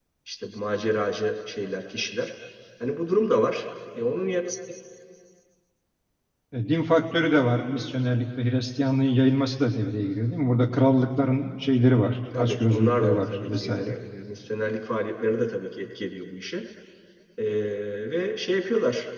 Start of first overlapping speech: 12.3 s

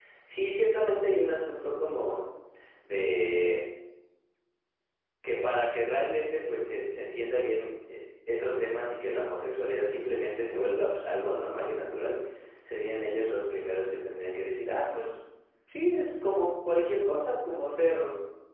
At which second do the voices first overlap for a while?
none

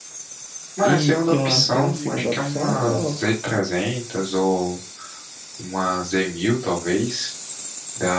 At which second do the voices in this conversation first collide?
0.8 s

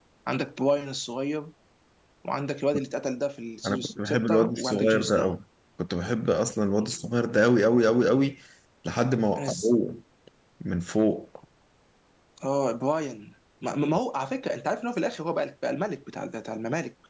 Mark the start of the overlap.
3.6 s

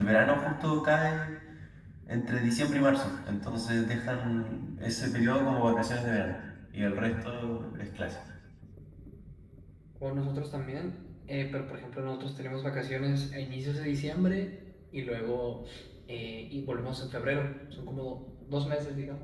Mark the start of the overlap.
none

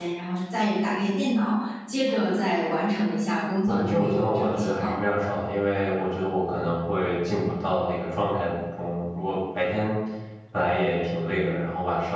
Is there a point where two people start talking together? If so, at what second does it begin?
3.7 s

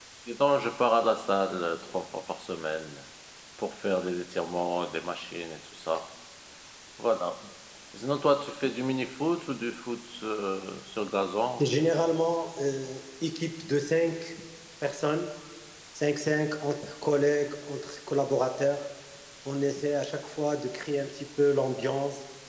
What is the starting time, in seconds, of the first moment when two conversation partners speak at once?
none

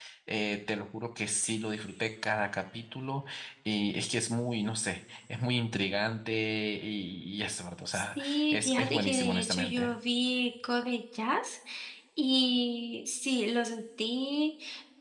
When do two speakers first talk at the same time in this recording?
7.9 s

